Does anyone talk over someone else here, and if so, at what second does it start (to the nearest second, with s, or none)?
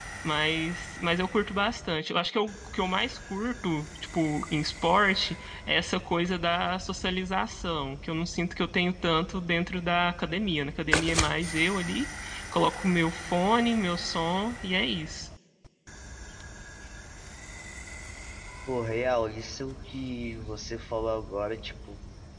none